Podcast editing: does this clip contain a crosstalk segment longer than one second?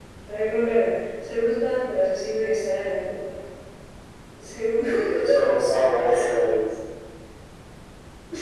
No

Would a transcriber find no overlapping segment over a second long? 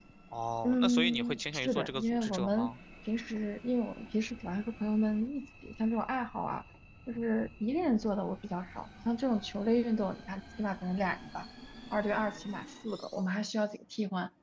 No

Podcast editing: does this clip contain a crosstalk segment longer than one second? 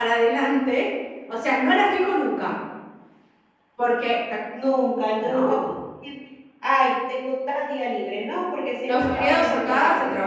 Yes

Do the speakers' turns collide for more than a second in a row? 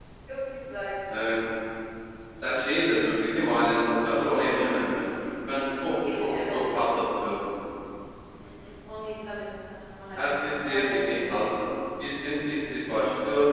Yes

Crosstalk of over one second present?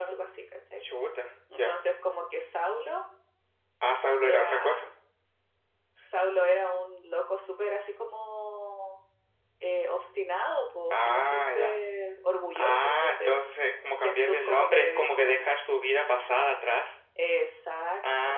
Yes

